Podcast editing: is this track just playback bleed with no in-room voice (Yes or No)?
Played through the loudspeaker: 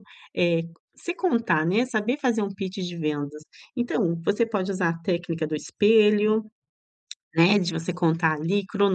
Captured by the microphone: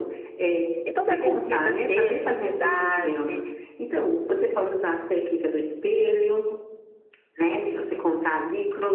No